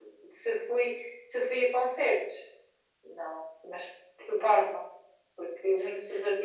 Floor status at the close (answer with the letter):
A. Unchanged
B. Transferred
A